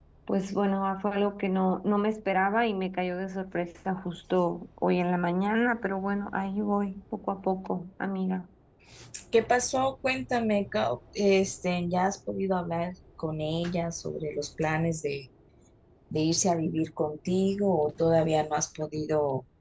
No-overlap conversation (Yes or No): Yes